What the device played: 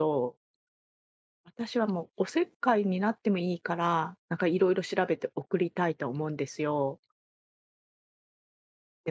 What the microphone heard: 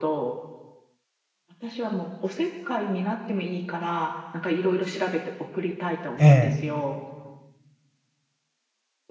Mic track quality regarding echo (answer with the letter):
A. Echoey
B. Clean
A